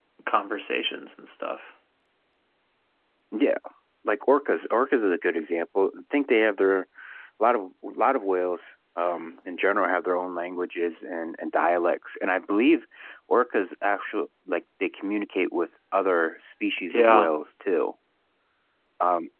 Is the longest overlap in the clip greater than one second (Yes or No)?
No